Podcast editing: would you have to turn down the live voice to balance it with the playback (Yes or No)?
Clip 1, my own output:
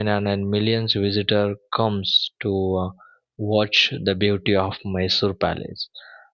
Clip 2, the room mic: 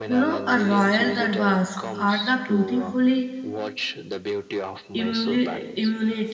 Yes